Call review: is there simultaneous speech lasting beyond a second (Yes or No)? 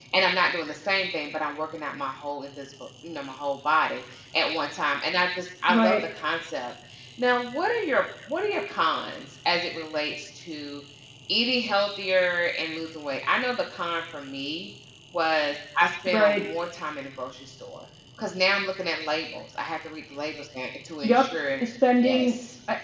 No